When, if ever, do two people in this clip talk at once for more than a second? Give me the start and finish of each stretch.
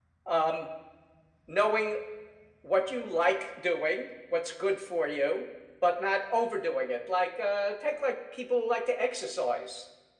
none

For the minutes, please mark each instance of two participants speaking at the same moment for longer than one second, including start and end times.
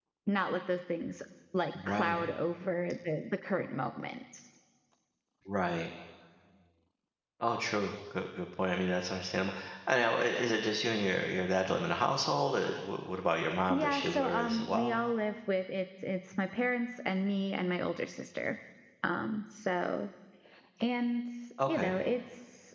13.7-15.0

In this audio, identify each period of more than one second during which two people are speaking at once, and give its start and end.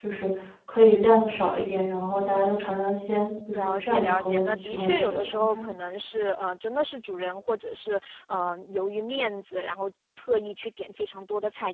3.5-5.7

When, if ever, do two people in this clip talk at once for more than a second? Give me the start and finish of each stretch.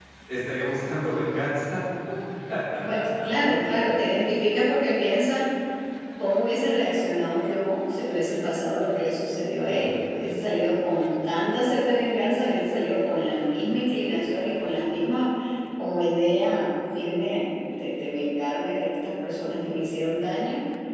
none

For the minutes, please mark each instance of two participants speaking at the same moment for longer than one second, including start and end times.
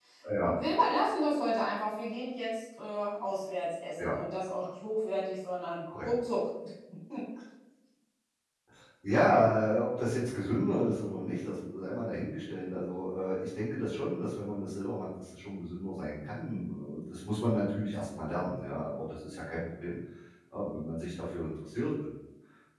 none

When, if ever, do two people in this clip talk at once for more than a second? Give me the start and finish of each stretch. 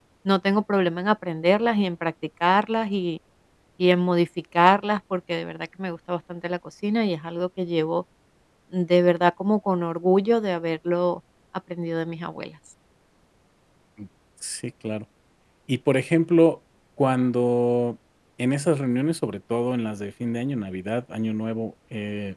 none

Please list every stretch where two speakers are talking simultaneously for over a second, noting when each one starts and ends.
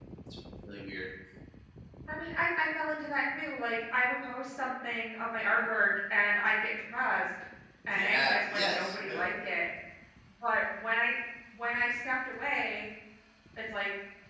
7.9-9.2

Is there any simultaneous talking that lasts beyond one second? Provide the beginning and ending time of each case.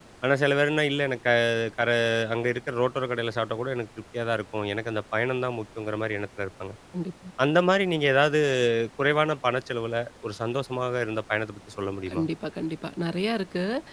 none

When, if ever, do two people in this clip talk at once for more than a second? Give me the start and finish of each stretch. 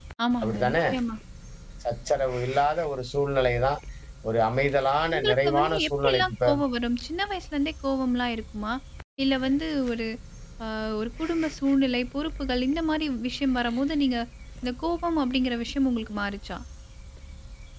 5.2-6.5

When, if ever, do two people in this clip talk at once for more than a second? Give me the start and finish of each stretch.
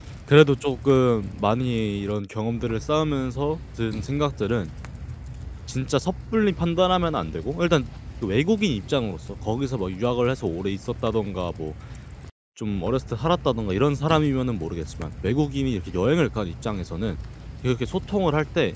none

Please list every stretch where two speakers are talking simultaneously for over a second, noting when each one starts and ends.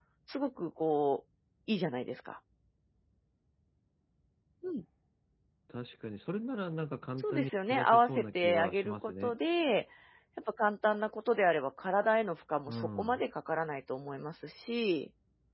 7.2-9.3

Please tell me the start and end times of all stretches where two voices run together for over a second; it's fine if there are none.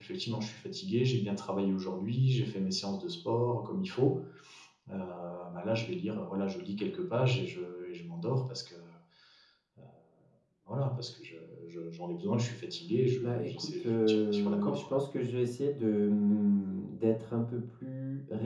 13.2-14.9

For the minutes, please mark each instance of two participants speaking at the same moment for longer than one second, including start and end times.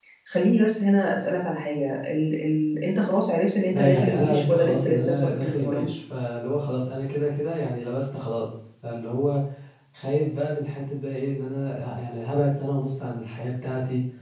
3.7-5.8

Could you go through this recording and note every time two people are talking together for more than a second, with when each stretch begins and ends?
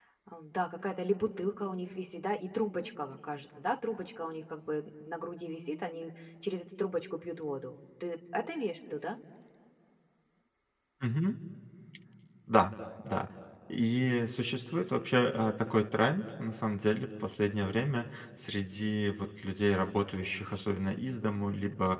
none

